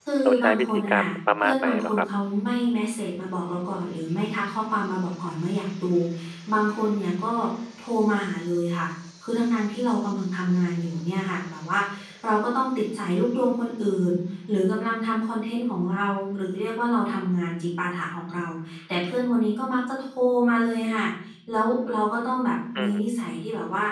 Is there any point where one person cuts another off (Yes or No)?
Yes